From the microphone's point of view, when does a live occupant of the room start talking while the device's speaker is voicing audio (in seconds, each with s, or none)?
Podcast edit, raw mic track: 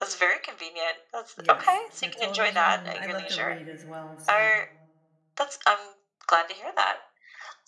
1.4 s